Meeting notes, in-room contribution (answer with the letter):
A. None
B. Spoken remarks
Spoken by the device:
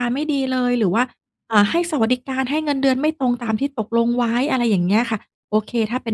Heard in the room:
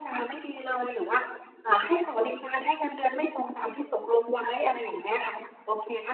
A